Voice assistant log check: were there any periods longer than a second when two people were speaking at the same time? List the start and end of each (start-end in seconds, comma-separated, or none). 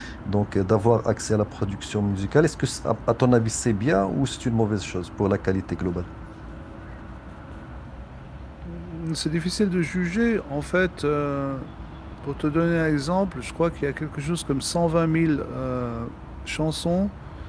none